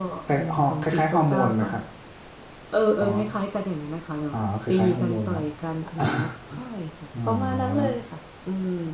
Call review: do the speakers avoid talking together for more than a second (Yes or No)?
No